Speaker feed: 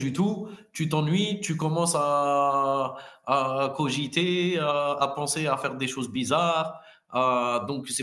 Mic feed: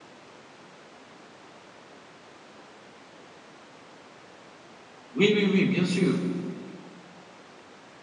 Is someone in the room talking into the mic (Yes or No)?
Yes